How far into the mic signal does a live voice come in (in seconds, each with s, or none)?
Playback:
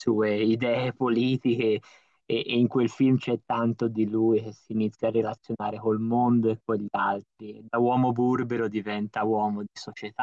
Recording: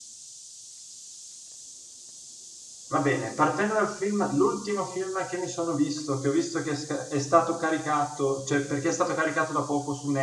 2.9 s